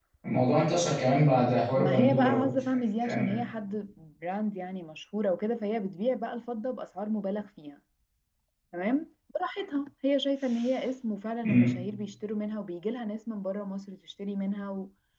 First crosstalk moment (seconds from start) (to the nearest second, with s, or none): 2 s